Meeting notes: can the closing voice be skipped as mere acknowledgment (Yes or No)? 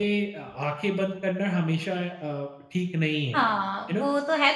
No